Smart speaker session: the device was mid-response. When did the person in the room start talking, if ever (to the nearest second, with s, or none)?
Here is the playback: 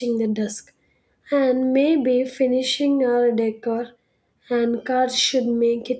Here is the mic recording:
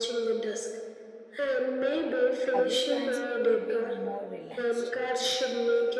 3 s